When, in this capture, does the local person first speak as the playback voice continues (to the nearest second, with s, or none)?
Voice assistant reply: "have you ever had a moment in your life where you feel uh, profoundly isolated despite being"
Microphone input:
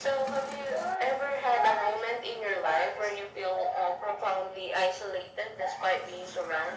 none